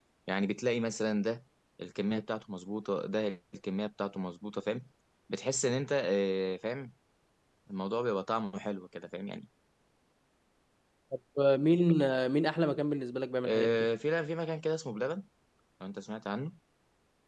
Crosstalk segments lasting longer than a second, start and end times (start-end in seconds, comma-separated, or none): none